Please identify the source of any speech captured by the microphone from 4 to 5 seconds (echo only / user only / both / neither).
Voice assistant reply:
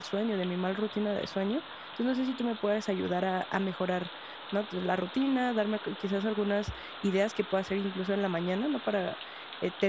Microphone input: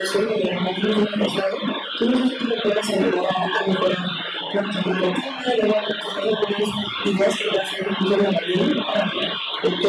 echo only